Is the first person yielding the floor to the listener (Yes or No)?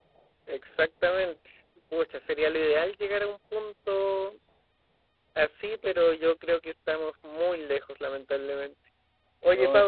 No